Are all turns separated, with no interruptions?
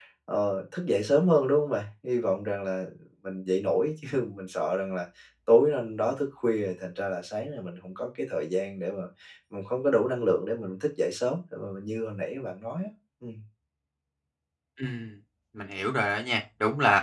Yes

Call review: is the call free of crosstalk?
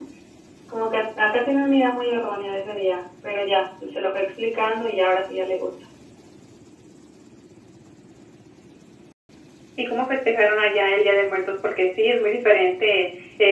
Yes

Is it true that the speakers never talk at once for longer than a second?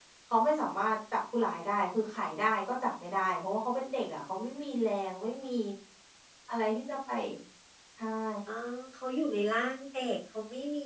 Yes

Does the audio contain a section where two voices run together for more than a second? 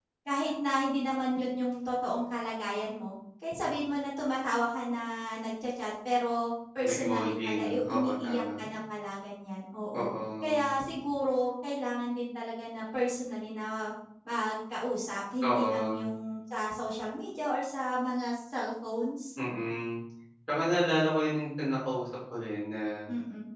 Yes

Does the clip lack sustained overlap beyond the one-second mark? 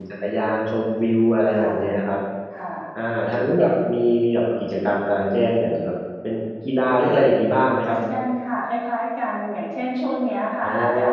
Yes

